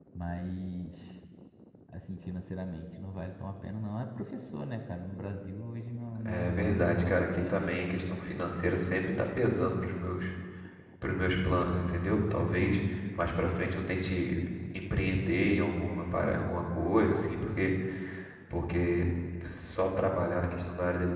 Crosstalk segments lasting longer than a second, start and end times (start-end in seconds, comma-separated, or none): 6.2-7.8